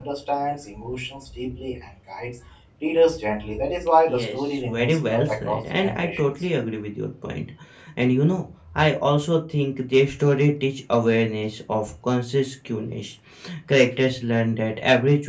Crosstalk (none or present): present